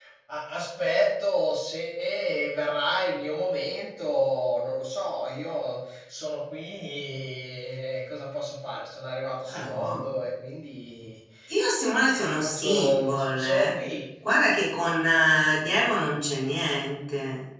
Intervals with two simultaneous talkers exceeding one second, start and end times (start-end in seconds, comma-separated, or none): 12.0-13.6